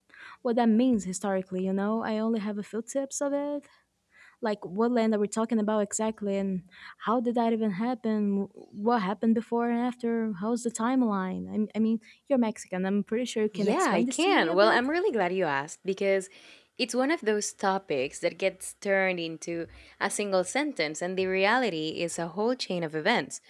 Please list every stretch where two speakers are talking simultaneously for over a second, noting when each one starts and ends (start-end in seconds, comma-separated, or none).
13.5-14.8